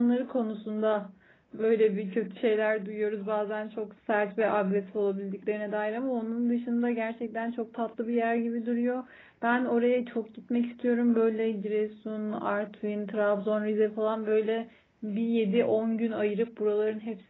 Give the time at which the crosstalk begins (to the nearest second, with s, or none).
none